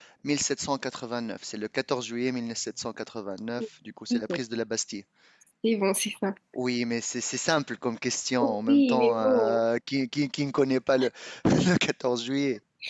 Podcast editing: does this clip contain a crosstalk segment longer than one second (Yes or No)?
Yes